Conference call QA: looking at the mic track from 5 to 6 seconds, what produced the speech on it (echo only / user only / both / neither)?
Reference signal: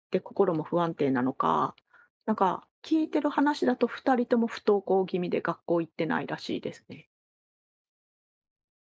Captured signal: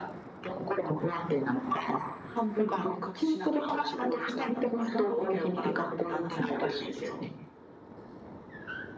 both